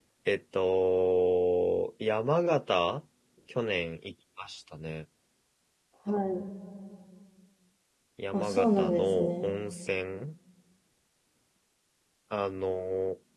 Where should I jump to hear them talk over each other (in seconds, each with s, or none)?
8.3 s